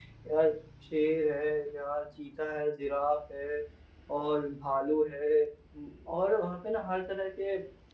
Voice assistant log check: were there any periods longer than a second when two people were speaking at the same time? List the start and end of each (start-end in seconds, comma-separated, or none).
none